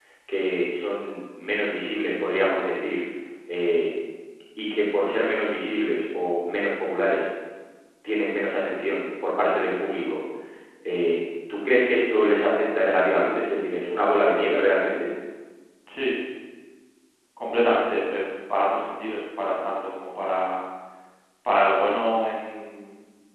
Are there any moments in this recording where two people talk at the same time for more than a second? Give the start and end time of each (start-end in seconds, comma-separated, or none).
none